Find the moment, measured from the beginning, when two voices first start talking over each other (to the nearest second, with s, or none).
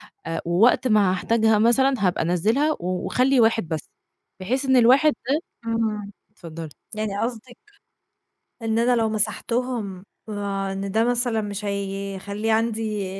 none